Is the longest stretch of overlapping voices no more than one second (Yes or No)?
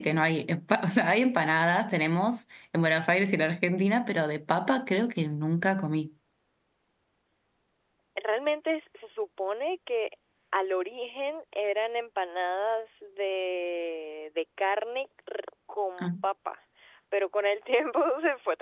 Yes